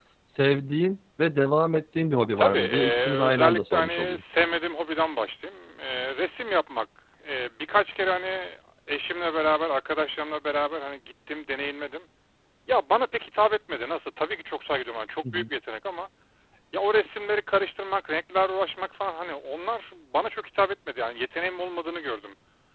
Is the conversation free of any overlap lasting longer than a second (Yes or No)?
No